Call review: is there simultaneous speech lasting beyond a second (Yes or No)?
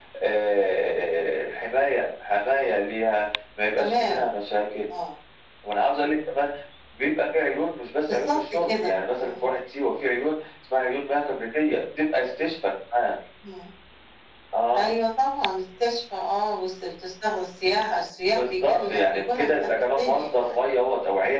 Yes